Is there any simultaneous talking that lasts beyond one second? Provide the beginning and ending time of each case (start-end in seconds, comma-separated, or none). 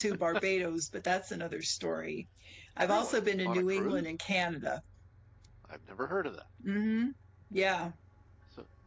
2.8-4.1